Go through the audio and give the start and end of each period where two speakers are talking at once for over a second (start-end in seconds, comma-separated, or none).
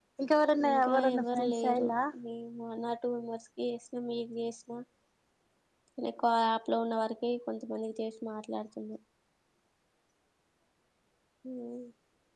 0.7-1.9